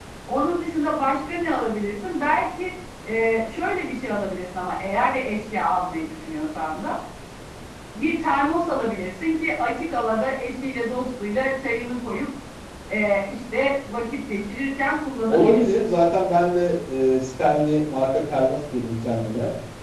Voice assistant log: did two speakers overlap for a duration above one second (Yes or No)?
No